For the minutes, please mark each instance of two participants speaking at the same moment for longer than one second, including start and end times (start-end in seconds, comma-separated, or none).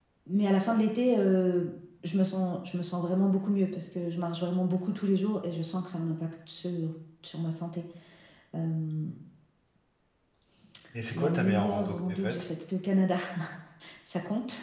11.1-12.4